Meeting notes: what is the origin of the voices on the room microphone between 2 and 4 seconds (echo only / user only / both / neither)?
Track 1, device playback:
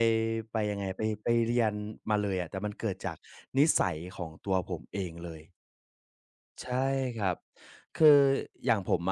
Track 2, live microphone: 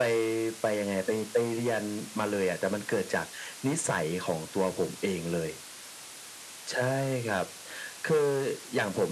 echo only